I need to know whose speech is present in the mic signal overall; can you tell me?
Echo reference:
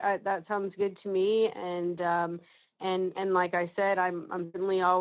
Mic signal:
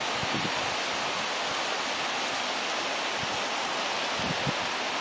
neither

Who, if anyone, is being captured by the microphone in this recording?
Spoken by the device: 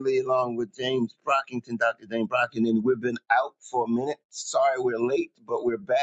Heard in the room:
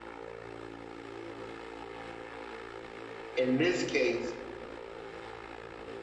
user only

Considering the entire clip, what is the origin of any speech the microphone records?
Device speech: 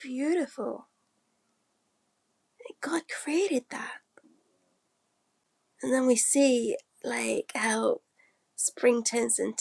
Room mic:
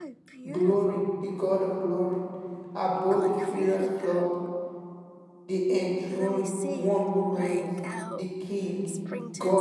both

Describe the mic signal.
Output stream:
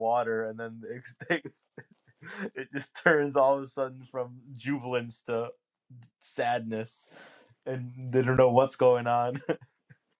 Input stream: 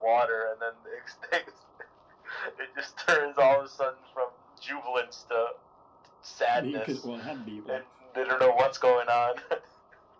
both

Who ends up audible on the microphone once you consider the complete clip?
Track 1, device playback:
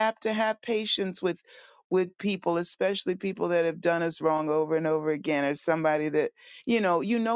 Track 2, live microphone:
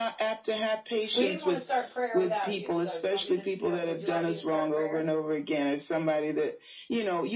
both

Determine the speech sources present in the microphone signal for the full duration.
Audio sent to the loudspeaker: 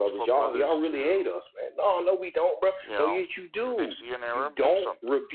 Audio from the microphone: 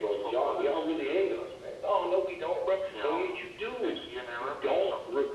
echo only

